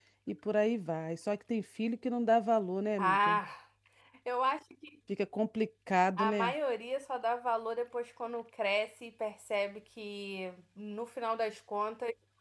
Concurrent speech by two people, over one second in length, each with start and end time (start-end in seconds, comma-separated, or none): none